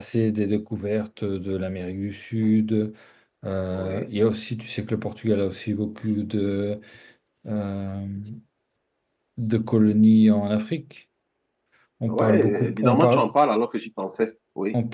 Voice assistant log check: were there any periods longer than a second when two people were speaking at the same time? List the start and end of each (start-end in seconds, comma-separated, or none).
12.1-13.3